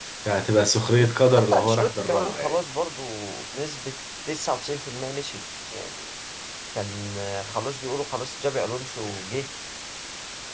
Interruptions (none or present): present